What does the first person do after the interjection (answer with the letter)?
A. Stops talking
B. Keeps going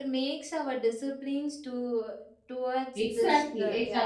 A